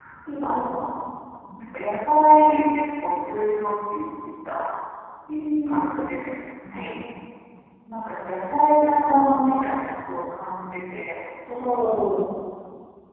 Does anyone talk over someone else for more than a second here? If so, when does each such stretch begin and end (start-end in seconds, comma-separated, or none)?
none